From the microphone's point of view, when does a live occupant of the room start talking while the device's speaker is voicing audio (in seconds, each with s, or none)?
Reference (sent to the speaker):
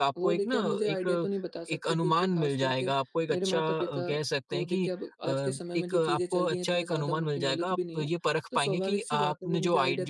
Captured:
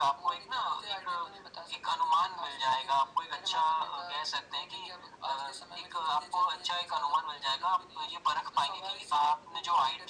none